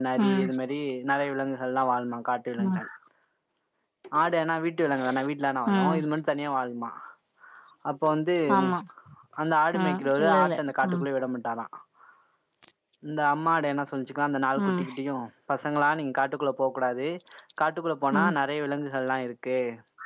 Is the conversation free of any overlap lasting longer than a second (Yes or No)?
No